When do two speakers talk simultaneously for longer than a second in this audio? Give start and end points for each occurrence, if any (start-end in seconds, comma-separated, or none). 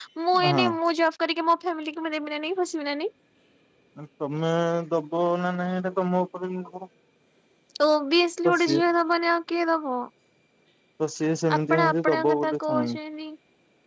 11.6-12.8